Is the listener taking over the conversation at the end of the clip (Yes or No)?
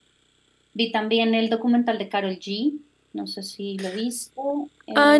Yes